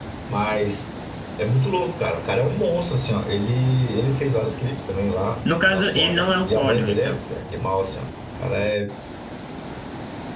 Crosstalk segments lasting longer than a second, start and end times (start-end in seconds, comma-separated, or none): 5.7-7.2